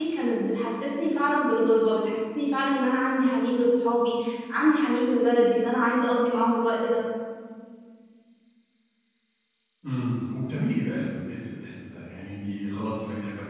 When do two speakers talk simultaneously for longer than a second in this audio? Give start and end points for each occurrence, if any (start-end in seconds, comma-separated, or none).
none